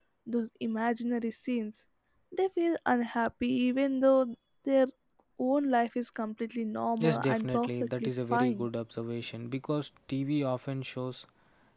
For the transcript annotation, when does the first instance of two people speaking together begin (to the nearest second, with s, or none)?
7 s